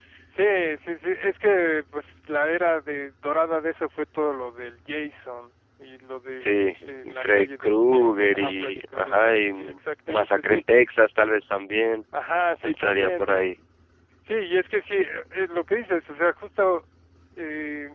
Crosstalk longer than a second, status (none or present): present